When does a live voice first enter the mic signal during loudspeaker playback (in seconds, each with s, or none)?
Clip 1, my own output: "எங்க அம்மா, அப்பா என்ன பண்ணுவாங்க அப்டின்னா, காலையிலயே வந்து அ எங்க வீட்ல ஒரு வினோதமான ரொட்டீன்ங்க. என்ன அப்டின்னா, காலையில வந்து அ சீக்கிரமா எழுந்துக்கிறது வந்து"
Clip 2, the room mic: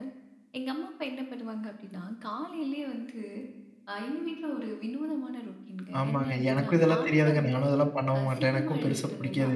6.0 s